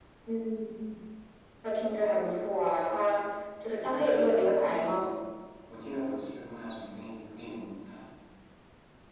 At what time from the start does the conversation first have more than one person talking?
3.8 s

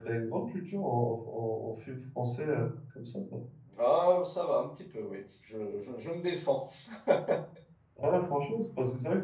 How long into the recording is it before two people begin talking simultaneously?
none

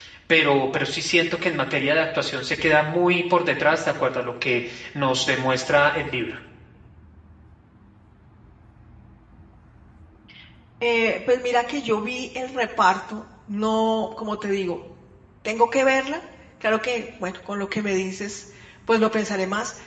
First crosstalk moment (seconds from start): none

